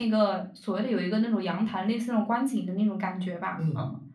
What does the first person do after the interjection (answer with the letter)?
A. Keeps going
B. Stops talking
B